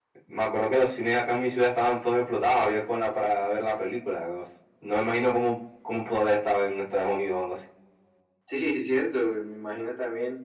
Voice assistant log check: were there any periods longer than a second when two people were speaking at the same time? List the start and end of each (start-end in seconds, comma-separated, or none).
none